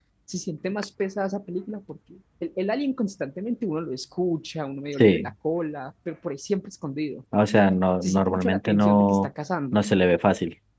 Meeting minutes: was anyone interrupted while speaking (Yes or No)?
Yes